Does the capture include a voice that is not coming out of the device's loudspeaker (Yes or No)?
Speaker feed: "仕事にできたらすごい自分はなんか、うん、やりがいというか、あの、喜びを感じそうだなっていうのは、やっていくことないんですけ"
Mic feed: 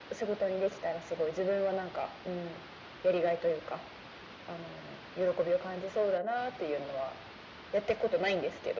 No